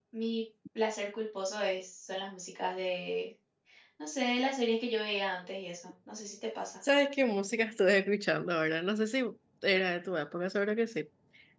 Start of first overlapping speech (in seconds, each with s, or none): none